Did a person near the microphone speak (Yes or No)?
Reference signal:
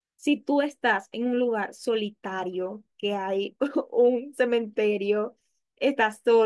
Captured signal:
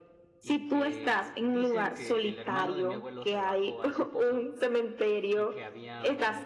Yes